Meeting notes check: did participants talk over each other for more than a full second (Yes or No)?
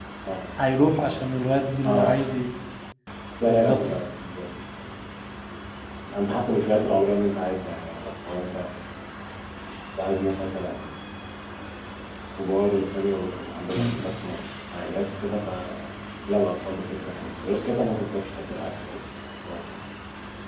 No